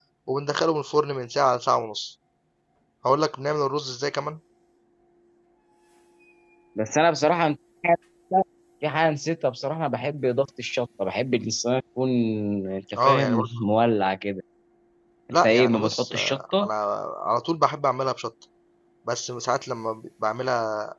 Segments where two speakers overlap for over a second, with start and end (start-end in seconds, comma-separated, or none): 15.4-16.7